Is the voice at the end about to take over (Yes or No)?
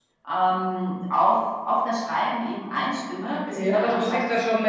Yes